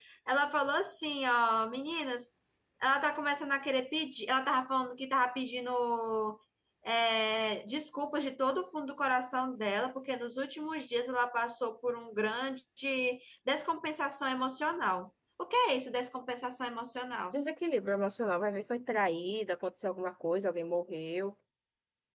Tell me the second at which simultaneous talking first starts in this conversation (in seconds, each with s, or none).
none